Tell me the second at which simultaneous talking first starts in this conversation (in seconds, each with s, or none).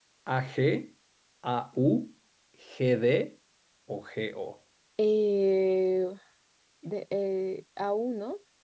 none